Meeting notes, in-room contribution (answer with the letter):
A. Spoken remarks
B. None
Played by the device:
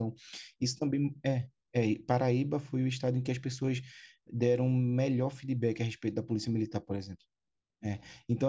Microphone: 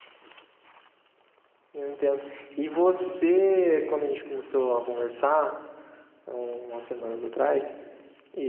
A